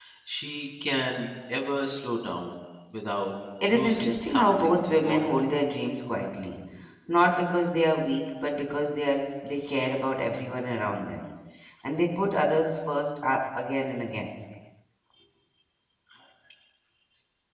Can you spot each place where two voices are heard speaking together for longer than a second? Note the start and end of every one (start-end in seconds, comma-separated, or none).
3.7-5.4